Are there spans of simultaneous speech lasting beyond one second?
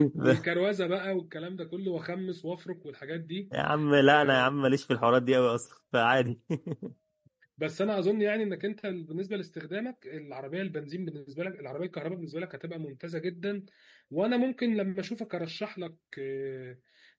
No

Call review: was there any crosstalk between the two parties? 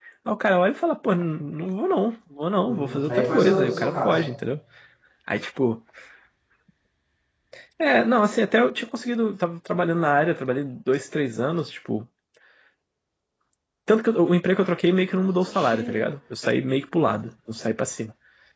Yes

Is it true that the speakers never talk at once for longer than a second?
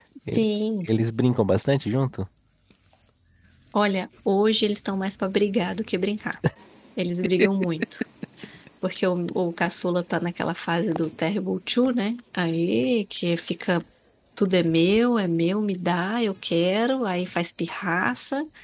Yes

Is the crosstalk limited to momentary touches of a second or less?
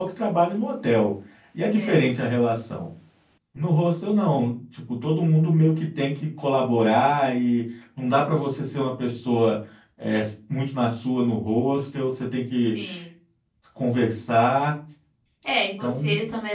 Yes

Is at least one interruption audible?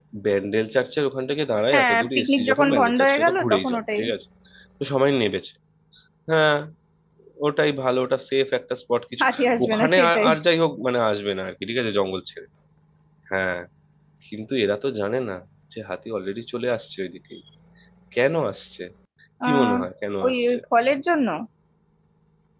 Yes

